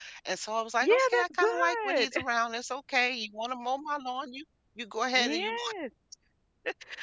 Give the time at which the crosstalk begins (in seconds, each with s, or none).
0.8 s